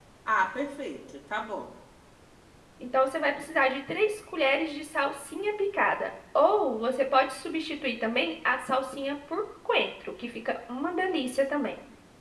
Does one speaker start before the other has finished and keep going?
No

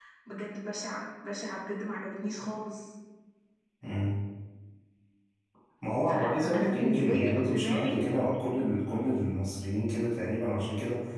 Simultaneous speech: Yes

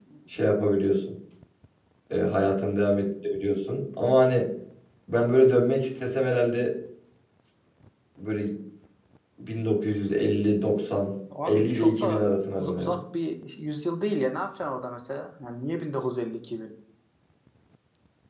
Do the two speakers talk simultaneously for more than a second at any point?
Yes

